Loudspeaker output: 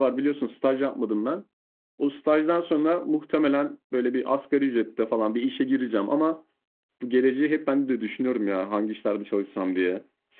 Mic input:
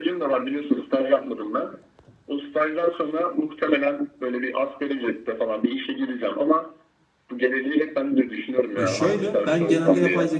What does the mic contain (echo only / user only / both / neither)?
both